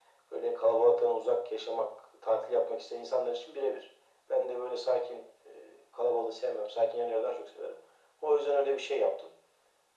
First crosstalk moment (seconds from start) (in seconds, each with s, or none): none